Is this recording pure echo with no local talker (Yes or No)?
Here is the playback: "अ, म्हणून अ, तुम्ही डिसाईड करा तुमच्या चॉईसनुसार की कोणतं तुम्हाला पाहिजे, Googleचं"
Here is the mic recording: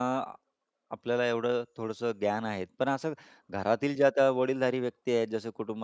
No